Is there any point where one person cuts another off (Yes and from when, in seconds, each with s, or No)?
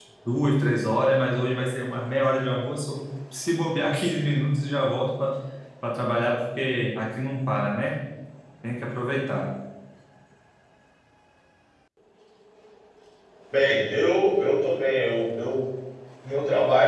No